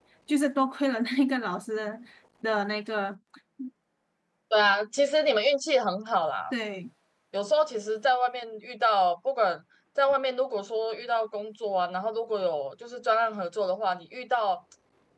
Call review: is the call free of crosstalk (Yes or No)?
Yes